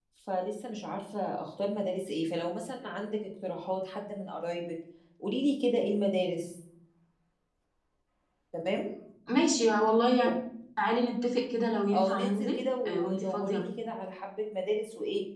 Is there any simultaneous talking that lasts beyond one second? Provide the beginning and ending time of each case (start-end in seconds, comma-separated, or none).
11.9-13.6